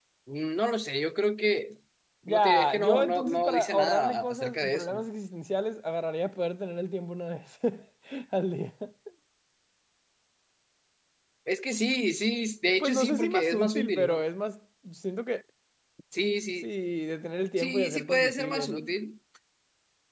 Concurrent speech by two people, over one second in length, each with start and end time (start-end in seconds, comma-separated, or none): 2.3-5.0, 12.8-14.2, 17.6-18.8